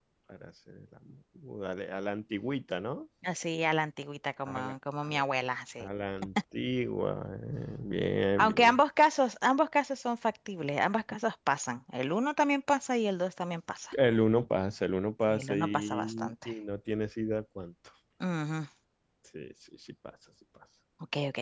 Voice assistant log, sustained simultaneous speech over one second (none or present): present